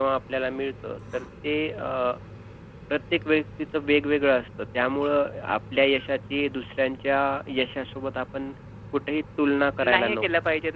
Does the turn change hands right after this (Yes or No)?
Yes